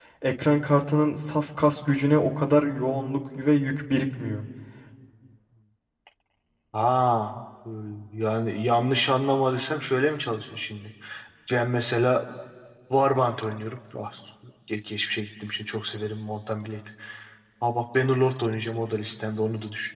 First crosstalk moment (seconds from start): none

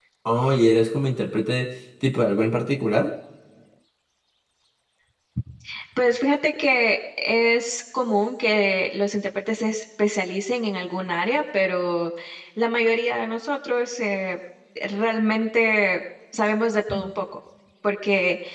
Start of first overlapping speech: none

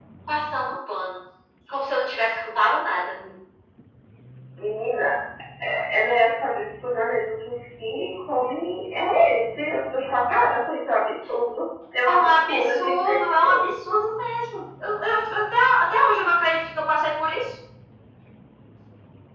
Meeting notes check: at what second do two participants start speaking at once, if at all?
12 s

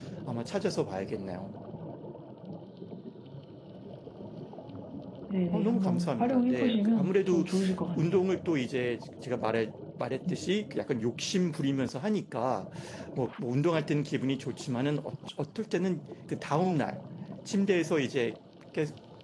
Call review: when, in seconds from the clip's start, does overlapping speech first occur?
6 s

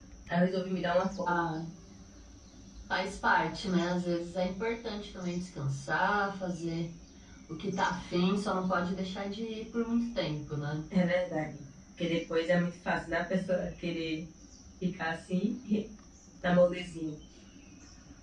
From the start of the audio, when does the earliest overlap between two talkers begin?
none

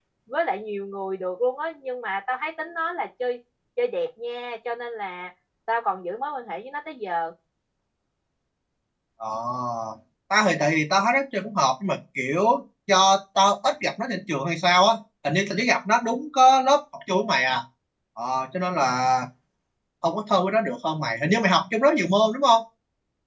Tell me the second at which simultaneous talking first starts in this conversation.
none

